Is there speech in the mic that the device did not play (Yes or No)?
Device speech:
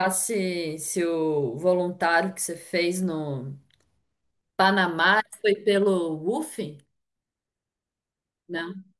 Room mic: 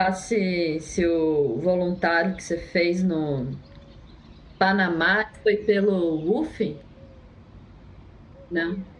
No